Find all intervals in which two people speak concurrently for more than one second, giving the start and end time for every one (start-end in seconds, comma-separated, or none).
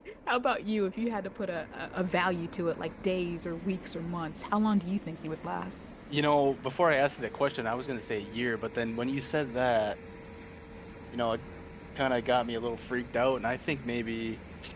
none